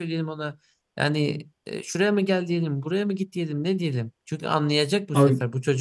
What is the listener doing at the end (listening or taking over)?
listening